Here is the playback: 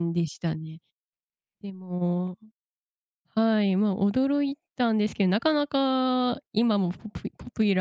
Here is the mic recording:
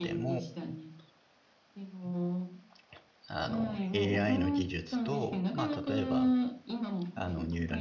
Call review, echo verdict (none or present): present